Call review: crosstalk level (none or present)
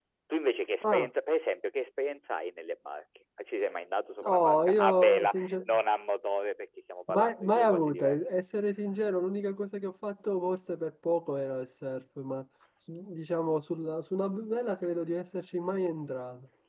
present